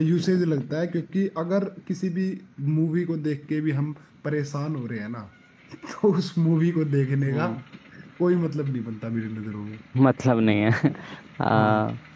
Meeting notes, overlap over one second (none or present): none